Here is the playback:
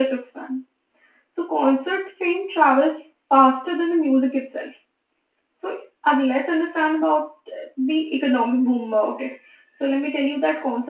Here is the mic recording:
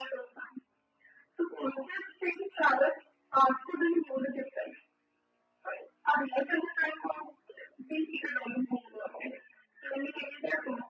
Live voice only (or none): none